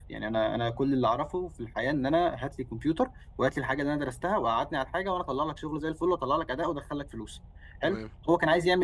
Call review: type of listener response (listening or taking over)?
listening